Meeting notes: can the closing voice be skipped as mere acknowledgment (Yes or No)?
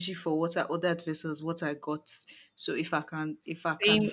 Yes